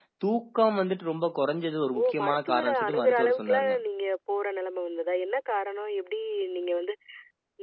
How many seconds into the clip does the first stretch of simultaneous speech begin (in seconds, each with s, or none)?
1.9 s